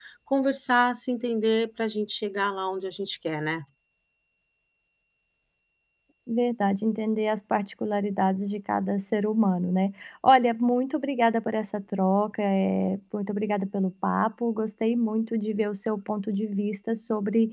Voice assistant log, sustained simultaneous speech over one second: none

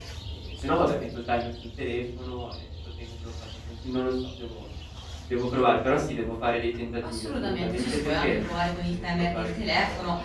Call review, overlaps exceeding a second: present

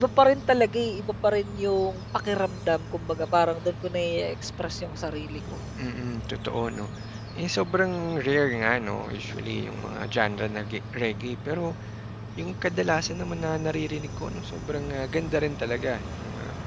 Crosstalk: none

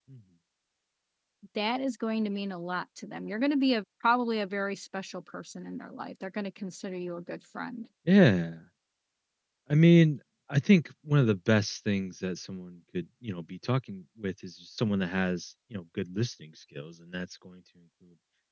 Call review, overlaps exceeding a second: none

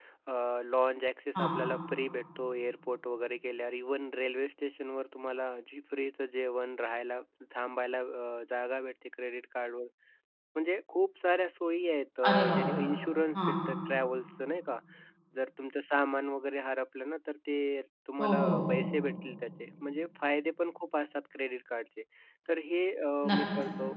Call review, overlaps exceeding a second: none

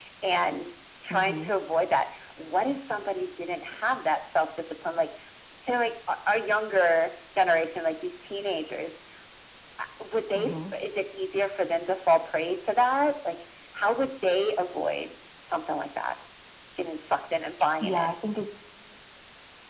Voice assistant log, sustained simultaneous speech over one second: none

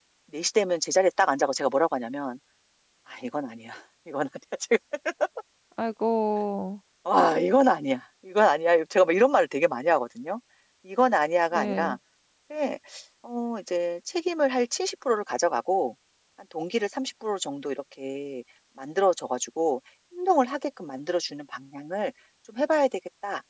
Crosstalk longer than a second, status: none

